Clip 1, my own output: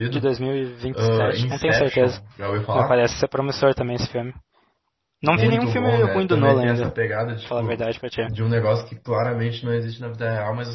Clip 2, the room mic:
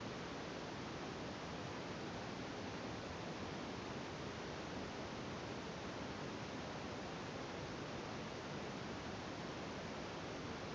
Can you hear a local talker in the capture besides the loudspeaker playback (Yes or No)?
No